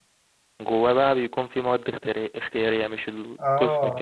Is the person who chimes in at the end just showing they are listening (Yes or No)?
No